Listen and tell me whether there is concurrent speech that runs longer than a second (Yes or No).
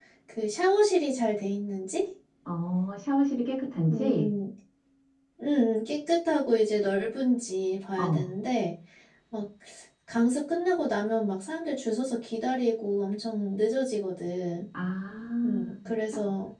No